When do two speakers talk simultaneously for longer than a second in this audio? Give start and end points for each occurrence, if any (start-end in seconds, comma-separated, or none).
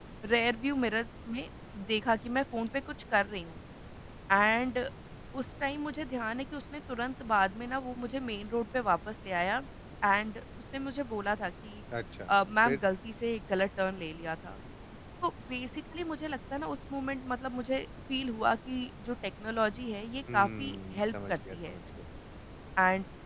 20.3-21.8